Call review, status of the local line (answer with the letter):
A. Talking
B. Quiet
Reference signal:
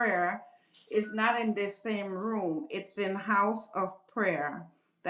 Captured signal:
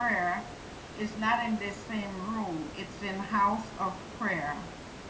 B